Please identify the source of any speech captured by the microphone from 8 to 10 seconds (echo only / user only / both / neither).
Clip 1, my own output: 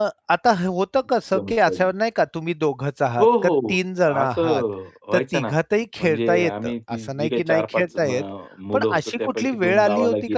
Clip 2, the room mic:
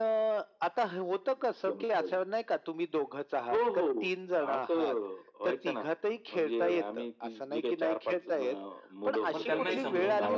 both